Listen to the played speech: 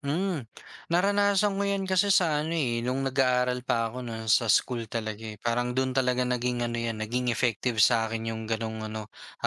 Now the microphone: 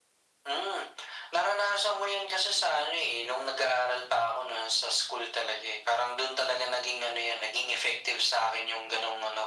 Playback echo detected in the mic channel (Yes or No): Yes